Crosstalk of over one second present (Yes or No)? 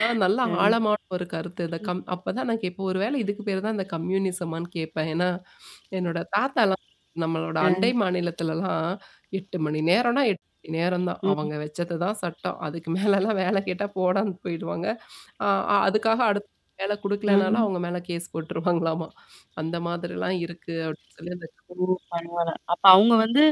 No